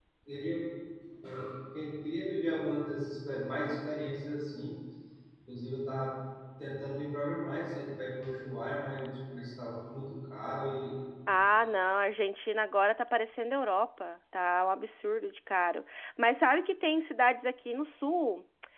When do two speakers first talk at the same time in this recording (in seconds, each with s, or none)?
none